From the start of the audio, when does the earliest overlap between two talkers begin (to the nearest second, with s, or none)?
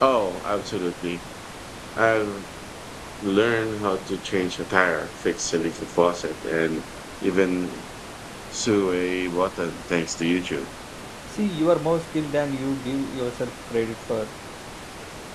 none